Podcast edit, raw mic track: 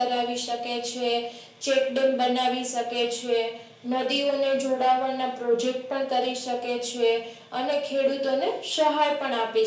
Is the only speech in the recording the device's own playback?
Yes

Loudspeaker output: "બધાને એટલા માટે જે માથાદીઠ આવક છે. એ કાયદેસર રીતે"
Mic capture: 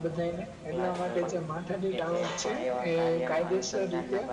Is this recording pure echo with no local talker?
No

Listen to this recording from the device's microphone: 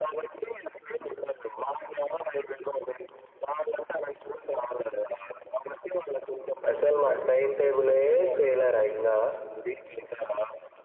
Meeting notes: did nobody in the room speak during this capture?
No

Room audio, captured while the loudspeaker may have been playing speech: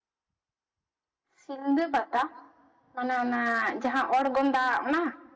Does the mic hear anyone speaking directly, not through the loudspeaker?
Yes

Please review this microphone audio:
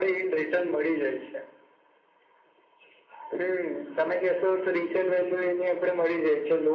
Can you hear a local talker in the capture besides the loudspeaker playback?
No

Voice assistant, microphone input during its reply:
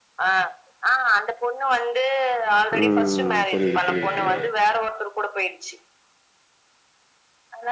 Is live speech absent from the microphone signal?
No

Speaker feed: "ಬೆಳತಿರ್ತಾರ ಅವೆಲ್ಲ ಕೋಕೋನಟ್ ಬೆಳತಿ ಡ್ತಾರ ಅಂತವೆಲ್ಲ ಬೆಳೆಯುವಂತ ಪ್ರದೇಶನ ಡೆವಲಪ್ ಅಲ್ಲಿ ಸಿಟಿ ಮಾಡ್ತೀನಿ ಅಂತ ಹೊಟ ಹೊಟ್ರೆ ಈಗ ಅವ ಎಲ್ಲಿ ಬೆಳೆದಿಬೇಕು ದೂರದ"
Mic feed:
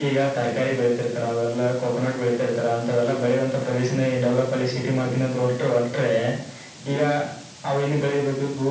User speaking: No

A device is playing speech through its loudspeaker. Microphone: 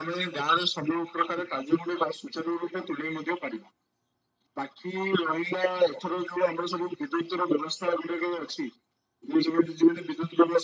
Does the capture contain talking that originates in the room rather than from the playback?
No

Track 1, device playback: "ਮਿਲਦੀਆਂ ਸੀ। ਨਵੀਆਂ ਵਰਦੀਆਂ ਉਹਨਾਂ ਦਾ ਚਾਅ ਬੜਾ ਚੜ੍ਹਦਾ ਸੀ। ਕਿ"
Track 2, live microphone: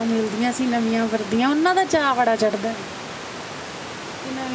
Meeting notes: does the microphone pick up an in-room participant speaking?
No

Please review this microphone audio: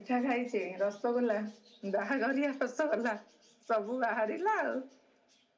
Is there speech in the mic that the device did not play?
No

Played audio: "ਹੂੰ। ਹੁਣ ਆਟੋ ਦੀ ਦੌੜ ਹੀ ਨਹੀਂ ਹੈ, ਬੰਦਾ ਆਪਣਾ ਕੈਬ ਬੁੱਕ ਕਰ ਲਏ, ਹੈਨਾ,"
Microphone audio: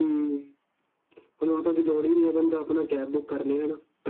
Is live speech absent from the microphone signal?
Yes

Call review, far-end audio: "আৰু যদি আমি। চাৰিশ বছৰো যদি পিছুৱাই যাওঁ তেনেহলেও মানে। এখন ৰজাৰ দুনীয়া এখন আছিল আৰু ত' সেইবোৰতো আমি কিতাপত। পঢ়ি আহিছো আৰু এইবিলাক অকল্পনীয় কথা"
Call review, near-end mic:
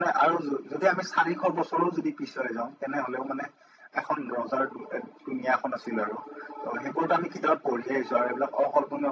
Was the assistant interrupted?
No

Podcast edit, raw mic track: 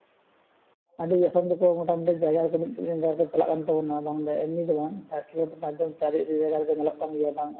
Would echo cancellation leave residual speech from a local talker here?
Yes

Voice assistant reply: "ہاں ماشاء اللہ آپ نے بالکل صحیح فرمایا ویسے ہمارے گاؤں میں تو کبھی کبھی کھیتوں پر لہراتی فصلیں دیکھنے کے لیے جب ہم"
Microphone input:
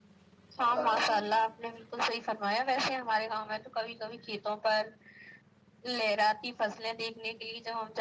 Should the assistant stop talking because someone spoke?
Yes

